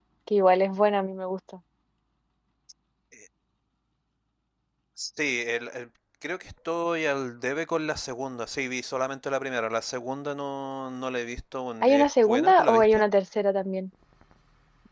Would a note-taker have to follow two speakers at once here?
Yes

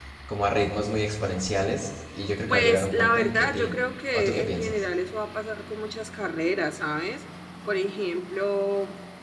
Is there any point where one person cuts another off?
Yes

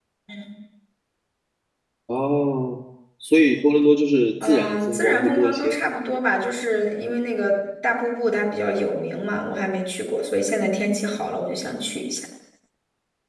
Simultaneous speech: Yes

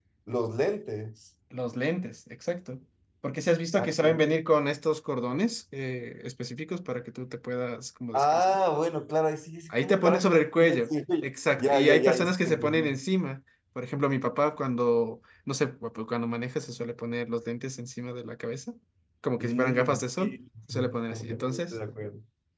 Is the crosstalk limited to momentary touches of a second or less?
No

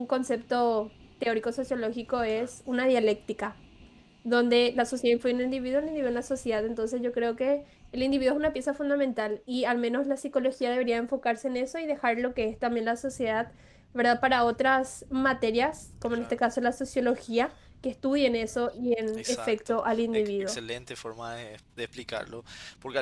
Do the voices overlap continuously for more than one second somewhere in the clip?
Yes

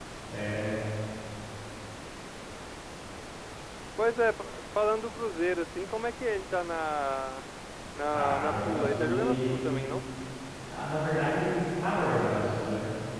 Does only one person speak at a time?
No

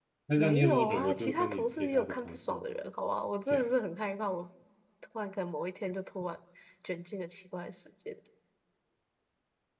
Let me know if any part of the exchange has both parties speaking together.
Yes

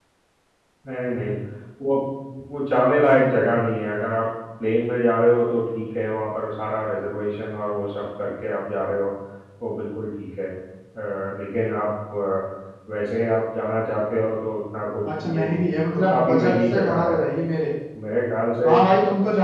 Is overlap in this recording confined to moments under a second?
No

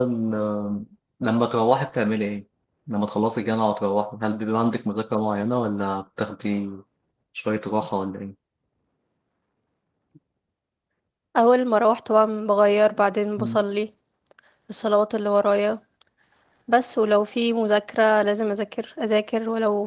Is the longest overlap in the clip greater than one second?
No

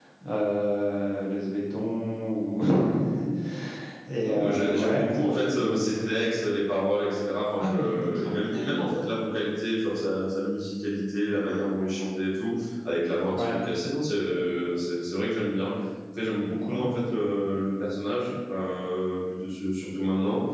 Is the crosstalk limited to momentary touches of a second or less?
No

